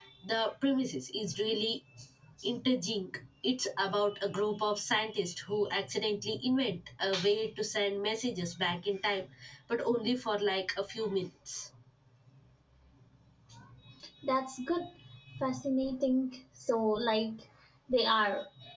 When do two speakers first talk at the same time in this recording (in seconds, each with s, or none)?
none